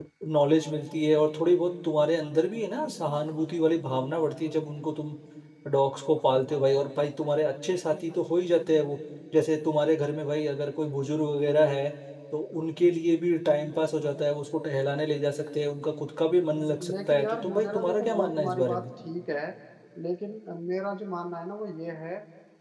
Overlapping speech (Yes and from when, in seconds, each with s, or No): Yes, from 16.8 s